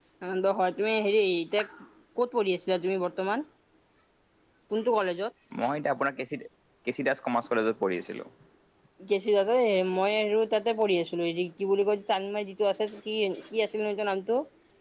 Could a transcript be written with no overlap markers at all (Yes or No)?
Yes